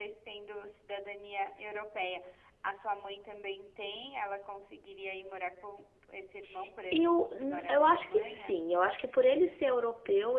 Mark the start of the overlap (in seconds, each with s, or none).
6.9 s